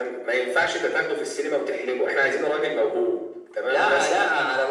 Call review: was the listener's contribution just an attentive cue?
No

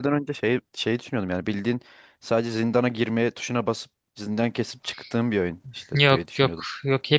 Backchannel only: No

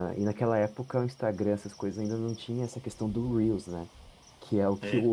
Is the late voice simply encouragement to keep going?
Yes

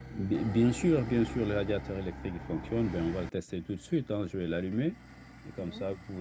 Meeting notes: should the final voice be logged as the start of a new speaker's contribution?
No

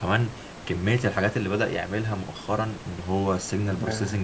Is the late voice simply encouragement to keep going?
Yes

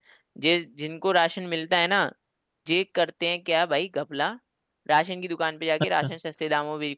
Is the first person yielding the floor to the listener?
No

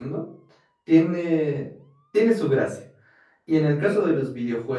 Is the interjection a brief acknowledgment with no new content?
Yes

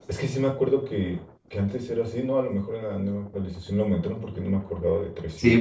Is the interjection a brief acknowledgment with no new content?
No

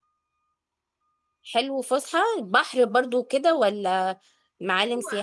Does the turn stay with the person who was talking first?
No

